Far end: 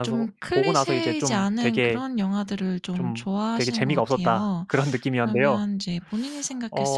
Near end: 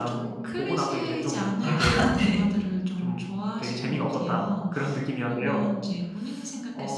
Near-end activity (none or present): present